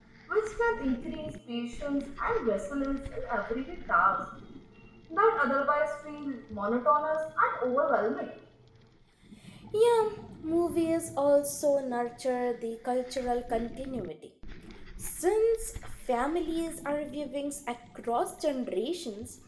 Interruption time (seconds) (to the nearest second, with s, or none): none